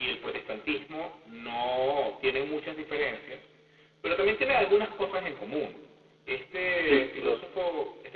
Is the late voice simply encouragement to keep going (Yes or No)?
Yes